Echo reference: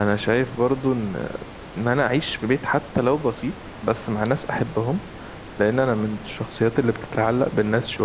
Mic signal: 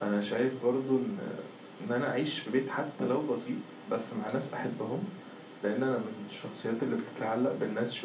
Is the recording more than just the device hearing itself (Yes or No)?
No